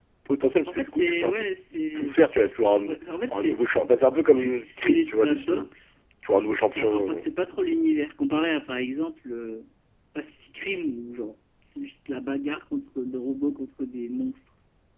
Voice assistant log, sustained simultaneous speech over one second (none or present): present